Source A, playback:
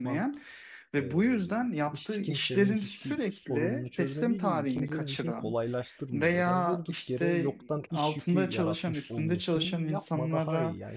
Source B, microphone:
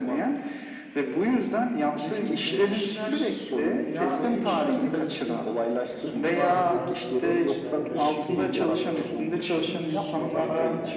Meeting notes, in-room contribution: present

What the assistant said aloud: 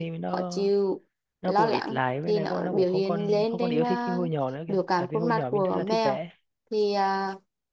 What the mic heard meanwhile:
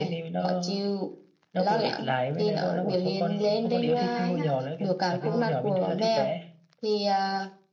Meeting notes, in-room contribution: present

